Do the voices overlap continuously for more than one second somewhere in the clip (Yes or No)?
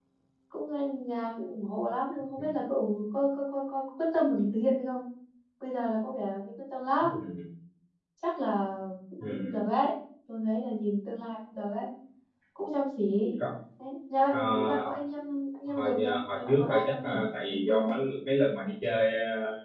Yes